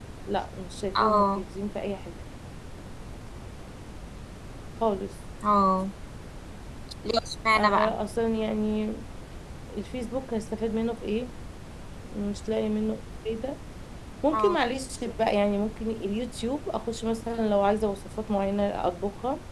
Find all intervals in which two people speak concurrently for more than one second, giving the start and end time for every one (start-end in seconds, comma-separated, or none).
none